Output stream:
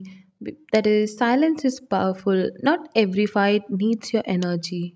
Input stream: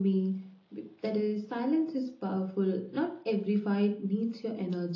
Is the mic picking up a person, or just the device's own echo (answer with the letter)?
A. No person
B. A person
A